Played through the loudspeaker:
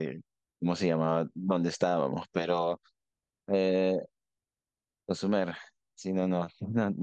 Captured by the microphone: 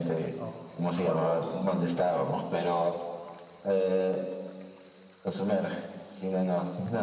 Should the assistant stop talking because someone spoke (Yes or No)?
Yes